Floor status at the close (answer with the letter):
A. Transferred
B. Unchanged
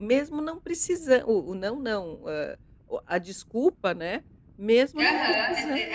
A